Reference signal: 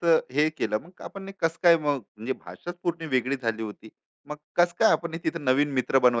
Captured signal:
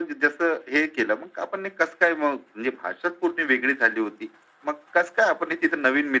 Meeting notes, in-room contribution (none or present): none